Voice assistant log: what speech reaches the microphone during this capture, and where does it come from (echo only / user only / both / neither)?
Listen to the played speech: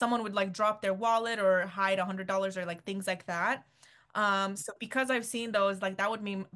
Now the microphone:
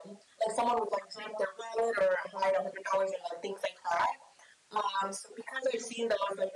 echo only